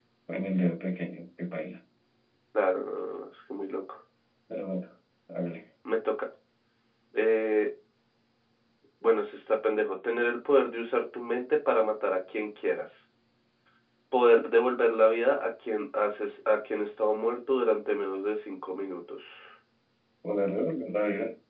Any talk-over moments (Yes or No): No